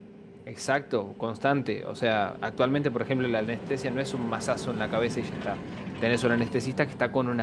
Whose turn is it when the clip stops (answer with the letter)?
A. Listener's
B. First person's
B